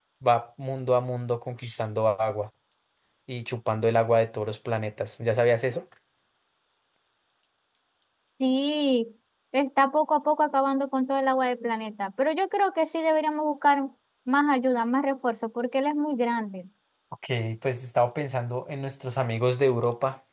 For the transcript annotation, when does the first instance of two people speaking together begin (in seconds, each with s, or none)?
none